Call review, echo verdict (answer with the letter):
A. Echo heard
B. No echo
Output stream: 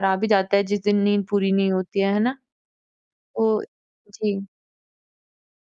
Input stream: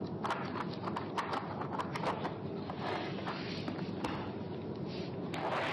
B